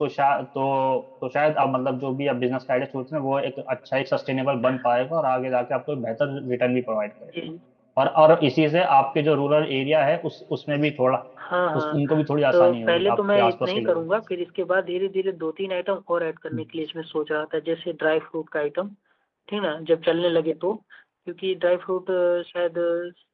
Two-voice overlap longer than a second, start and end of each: 12.5-14.0

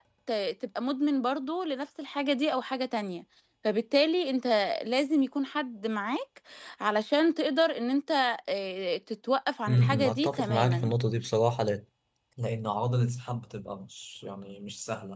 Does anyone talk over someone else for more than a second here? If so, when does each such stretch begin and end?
9.7-10.9

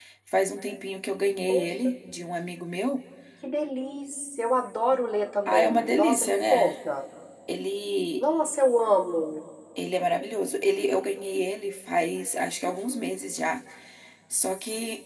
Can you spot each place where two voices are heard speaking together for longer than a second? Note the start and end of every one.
5.5-6.8

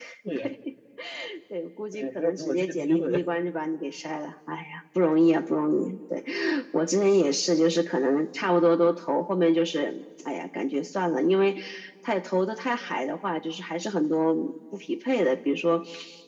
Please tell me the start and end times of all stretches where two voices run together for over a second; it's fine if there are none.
1.9-3.2

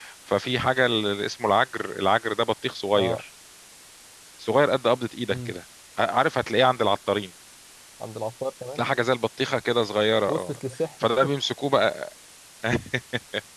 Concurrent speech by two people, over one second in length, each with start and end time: none

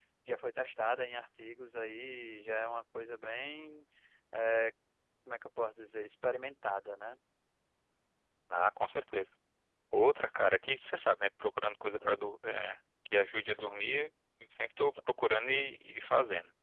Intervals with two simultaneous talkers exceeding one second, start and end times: none

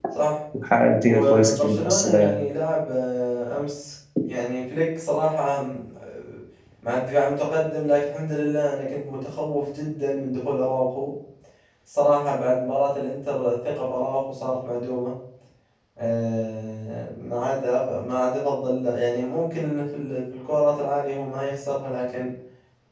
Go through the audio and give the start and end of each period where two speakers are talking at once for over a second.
1.0-2.4

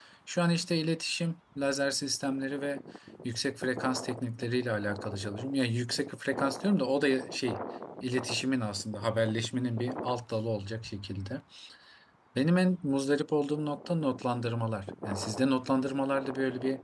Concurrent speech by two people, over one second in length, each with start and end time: none

